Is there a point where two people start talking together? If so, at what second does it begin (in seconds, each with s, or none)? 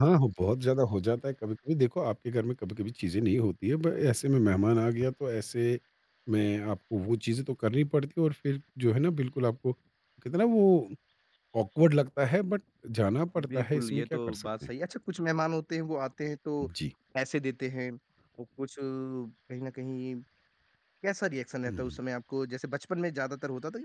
13.5 s